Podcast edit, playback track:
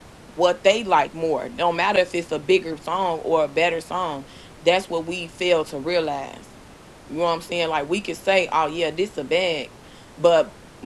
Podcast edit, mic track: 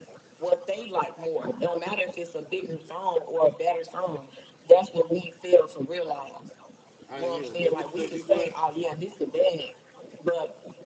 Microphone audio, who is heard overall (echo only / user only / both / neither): both